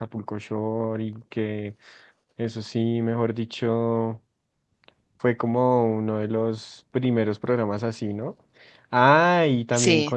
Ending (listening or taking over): listening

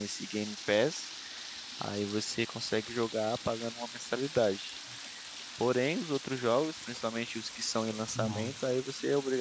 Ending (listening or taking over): listening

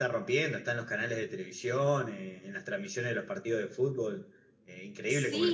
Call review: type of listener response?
taking over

